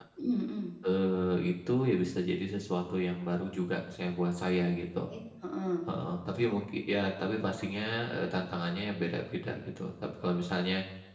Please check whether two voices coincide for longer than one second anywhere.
No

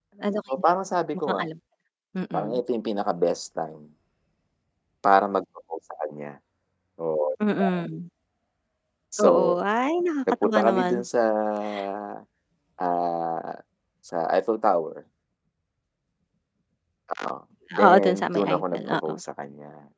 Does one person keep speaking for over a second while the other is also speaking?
Yes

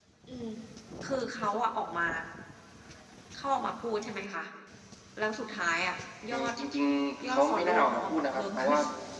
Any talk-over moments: Yes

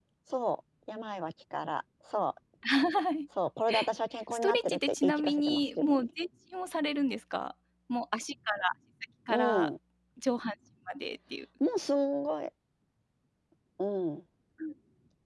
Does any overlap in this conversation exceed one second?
Yes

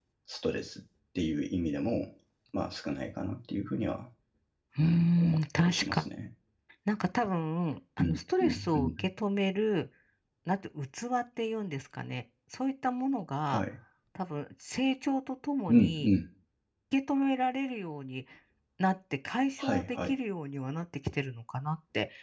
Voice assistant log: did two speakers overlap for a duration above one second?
Yes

